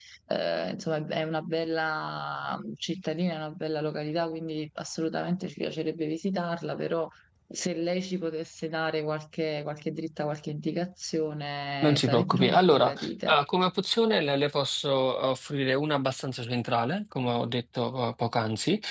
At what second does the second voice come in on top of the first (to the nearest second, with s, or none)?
12 s